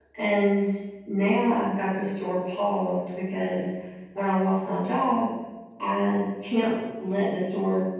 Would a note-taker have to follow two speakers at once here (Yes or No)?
No